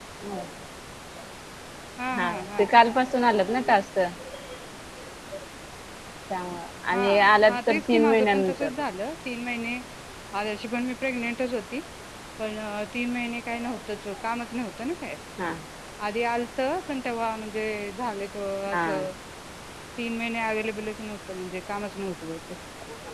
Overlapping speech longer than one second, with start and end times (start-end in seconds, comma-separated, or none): 7.5-8.7